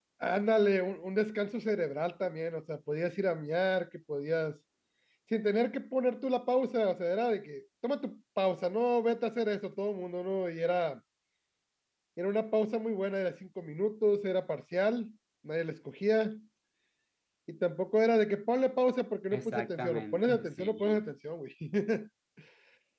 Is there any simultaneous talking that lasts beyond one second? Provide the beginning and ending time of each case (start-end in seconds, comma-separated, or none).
19.3-21.0